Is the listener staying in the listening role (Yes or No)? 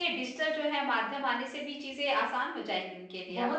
No